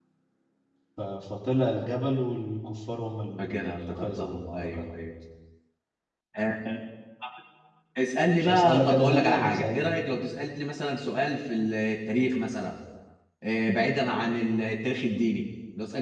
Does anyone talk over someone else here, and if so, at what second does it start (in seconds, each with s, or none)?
3.4 s